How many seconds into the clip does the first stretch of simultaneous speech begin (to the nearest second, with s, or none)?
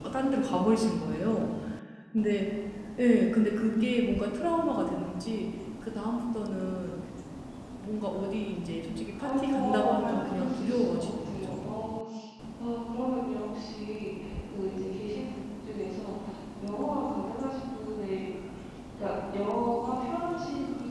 9 s